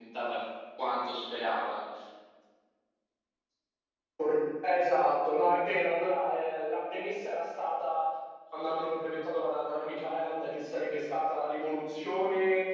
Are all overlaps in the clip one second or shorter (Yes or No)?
Yes